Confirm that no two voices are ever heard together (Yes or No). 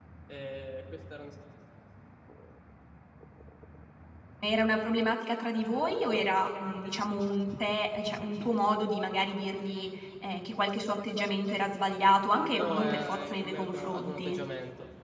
No